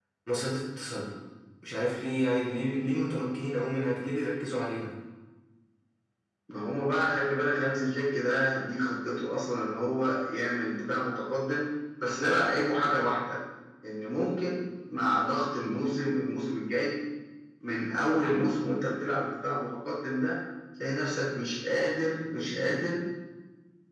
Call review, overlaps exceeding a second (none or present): none